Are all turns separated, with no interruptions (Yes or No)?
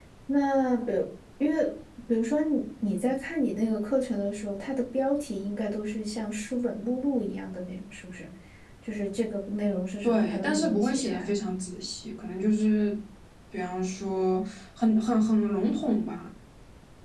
No